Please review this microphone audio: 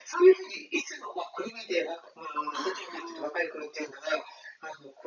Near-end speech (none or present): present